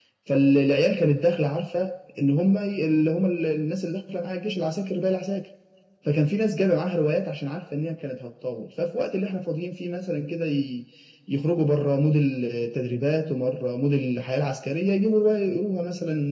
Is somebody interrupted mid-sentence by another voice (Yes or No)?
No